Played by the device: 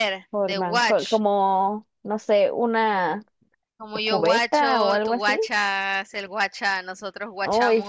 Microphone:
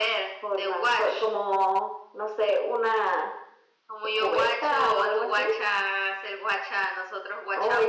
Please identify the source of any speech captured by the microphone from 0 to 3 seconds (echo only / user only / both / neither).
echo only